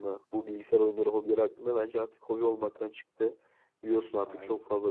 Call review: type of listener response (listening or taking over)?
listening